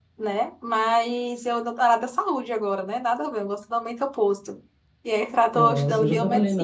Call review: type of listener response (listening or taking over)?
taking over